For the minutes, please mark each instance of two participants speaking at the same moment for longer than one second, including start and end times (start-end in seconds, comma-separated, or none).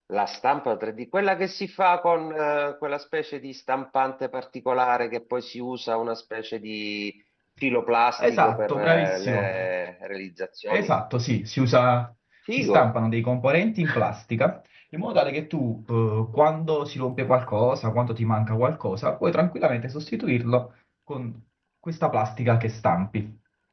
8.2-9.5